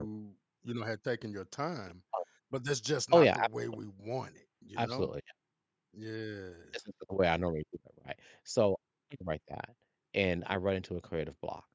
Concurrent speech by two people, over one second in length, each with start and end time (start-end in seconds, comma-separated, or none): none